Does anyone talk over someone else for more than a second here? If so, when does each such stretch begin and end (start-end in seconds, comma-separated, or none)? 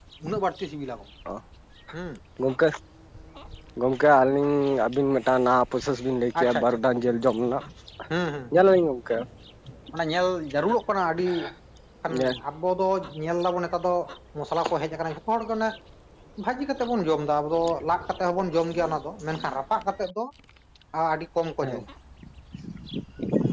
none